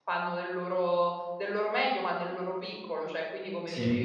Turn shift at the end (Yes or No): No